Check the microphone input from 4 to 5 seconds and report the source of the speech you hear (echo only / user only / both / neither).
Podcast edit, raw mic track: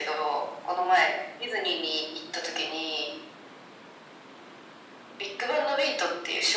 neither